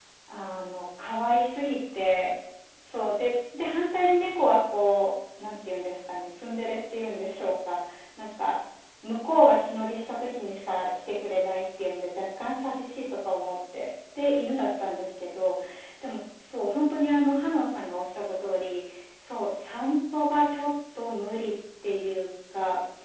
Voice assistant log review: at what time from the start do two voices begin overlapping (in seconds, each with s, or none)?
none